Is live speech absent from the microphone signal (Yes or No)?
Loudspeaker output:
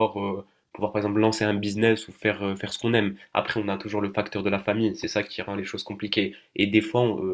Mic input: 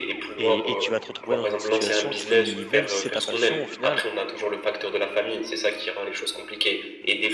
No